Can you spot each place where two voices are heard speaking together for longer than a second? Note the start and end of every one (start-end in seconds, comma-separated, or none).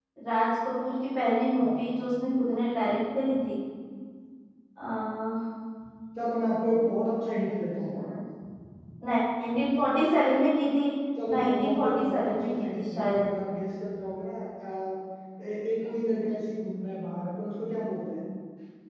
11.4-13.3